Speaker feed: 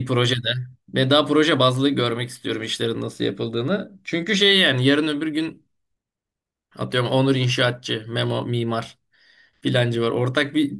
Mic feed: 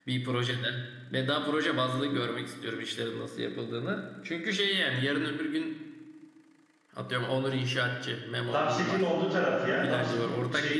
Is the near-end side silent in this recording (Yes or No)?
No